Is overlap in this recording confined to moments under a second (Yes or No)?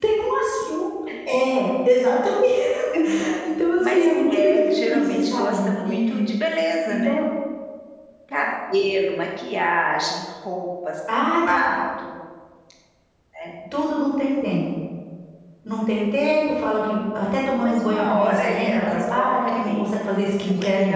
No